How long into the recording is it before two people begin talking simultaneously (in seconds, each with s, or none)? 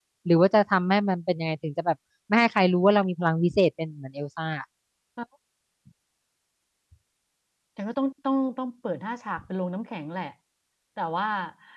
none